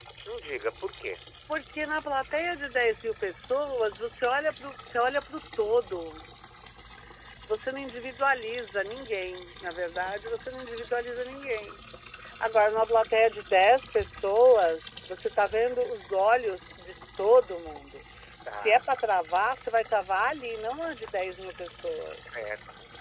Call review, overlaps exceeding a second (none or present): none